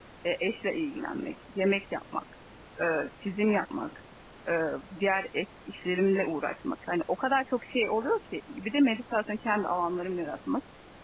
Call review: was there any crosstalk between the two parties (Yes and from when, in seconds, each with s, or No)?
No